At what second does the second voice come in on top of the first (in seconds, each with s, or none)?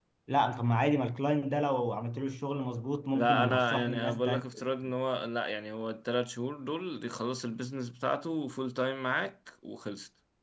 3.1 s